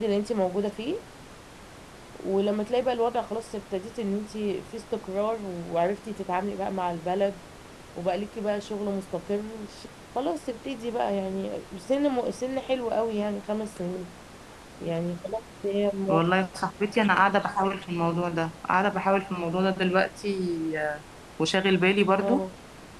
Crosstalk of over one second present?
No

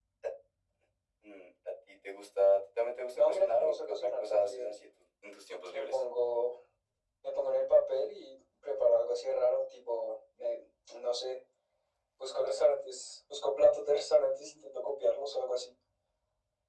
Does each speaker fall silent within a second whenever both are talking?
No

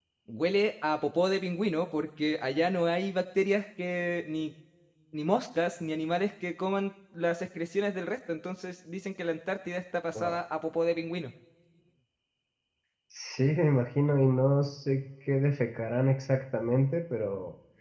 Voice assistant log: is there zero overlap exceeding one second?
Yes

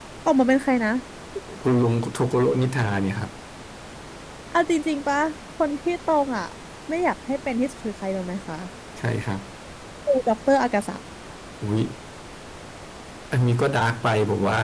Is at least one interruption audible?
No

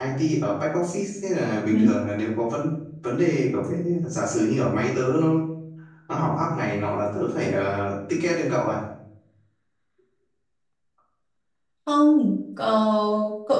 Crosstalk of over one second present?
No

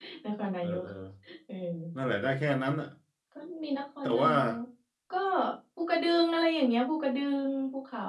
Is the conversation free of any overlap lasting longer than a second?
Yes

